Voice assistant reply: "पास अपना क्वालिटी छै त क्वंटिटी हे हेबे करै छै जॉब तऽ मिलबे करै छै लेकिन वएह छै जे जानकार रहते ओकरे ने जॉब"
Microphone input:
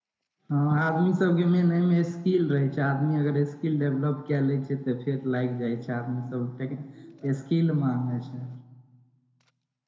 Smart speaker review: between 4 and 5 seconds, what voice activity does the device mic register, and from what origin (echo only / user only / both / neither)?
user only